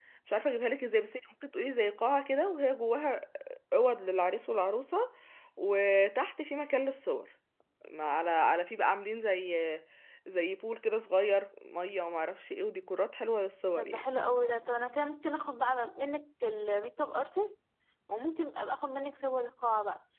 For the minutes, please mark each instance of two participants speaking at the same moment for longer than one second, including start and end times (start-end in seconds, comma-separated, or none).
none